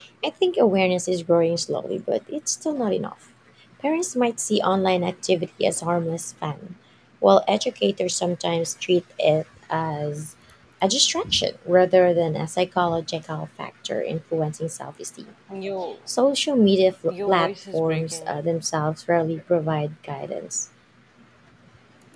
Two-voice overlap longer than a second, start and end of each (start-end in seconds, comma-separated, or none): 17.1-18.3